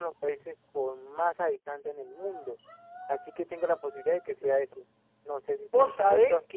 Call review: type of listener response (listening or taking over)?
taking over